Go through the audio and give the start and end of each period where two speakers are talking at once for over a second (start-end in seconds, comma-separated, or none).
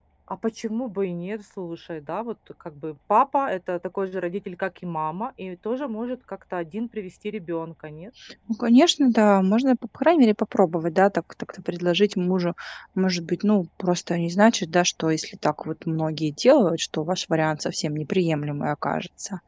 none